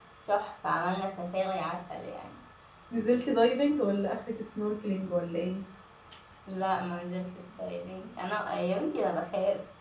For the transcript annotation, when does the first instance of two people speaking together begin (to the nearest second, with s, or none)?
none